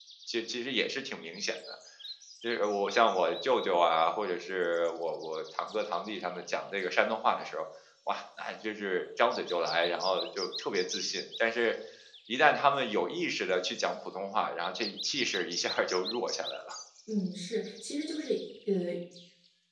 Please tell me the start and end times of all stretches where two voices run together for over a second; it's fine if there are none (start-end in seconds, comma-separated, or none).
none